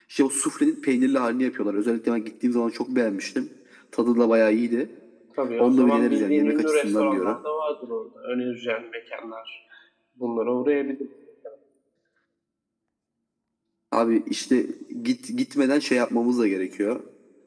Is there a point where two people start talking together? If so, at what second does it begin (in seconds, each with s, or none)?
5.6 s